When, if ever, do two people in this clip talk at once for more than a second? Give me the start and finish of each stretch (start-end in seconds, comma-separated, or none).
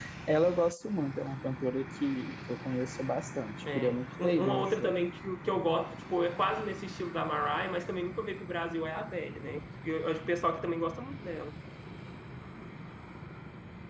3.8-5.0